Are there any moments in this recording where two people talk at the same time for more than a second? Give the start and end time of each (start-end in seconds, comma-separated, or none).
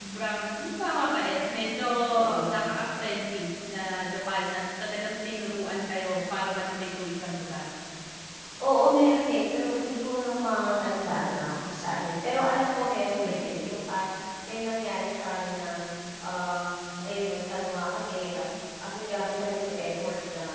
none